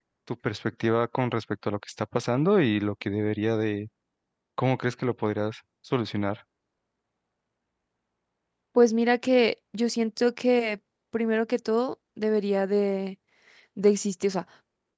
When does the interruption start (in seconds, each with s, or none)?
none